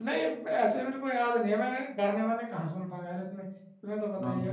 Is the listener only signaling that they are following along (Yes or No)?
Yes